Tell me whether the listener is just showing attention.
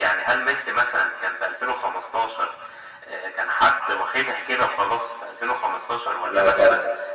Yes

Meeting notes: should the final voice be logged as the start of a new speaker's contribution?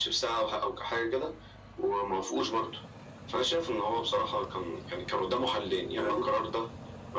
No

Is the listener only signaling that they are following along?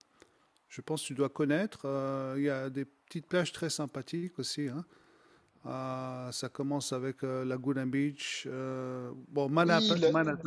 No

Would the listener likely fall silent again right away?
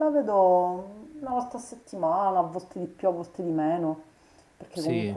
Yes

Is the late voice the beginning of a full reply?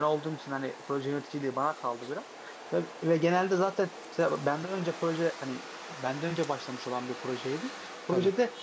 No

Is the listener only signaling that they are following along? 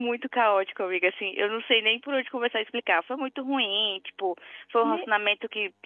Yes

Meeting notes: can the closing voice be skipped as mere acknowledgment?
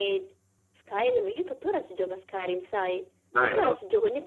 Yes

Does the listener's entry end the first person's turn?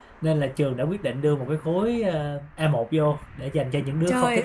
Yes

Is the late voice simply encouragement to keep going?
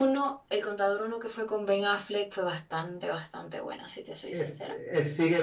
No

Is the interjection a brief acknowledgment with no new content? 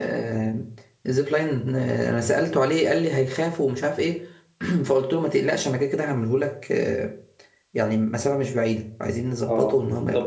No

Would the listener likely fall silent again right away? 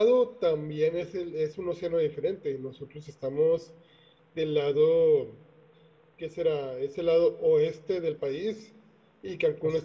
Yes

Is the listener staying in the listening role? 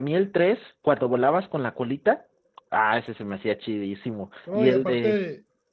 No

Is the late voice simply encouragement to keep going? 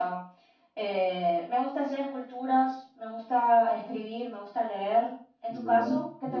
No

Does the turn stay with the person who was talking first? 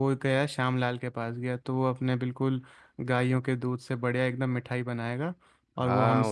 No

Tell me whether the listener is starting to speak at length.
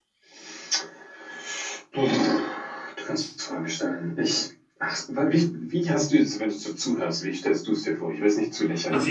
Yes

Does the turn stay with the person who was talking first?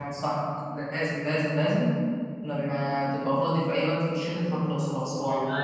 No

